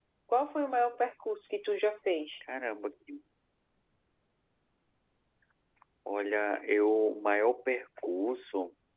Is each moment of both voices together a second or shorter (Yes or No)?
Yes